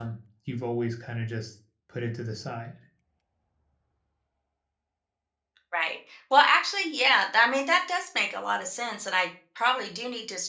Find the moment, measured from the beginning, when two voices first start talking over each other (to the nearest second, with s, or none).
none